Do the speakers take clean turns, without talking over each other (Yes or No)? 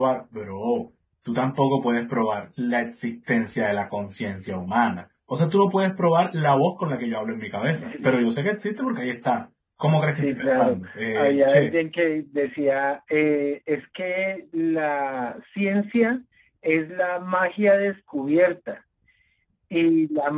No